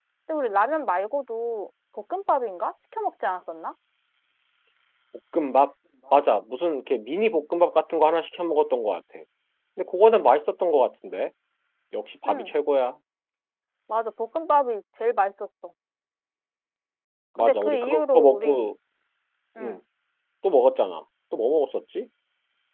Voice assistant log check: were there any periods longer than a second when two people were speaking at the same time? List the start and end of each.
17.4-18.7

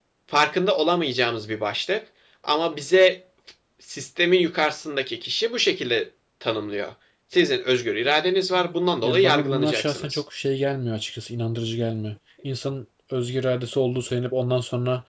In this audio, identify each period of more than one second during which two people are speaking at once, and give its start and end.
9.0-10.2

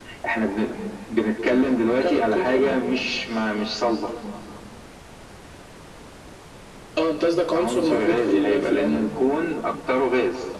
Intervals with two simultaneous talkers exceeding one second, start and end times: 1.5-2.8, 7.5-9.1

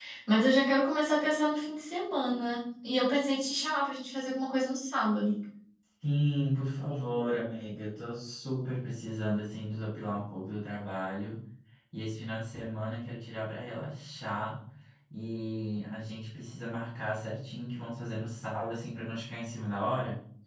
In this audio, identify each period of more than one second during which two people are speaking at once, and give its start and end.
none

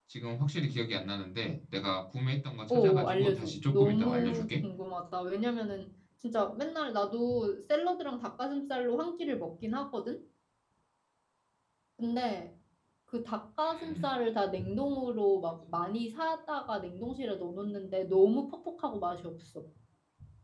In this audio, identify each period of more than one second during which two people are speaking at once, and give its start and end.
2.7-4.5

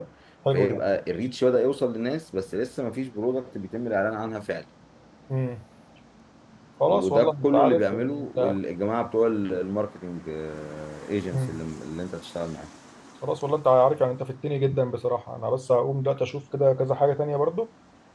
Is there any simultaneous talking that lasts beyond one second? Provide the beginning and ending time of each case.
6.9-8.6

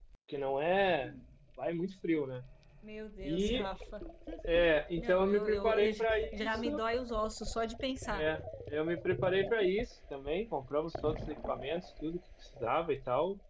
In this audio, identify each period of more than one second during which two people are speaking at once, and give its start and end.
5.0-6.7

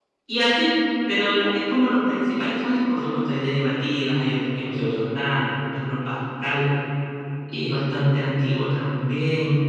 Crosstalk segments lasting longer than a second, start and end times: none

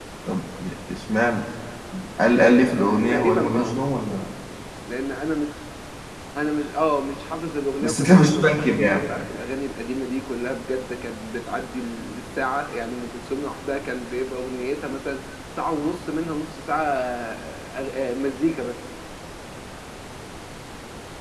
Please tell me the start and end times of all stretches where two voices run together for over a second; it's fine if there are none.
2.3-3.7, 7.8-9.0

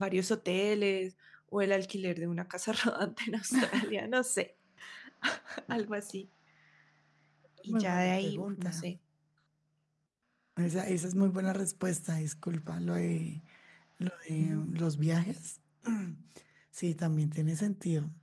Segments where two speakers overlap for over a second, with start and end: 7.7-8.9

